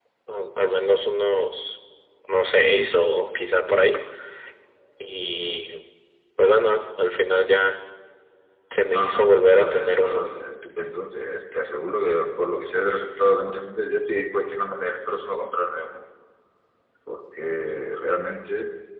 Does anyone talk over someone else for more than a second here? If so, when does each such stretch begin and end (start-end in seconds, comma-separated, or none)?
8.9-10.2